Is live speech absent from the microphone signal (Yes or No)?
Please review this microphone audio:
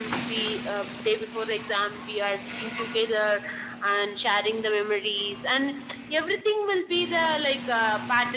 Yes